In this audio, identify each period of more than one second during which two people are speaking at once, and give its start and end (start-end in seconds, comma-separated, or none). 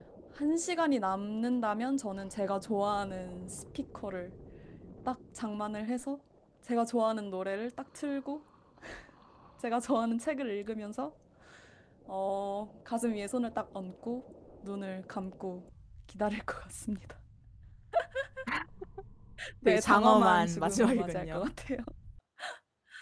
19.6-21.4